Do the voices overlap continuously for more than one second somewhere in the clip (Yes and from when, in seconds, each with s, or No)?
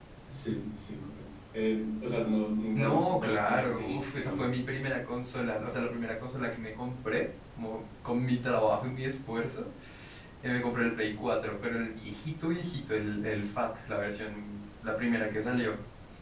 Yes, from 2.7 s